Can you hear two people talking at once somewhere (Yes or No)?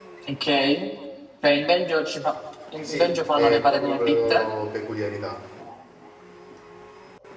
Yes